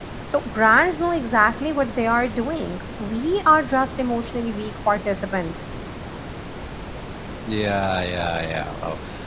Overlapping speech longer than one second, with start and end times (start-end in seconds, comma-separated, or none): none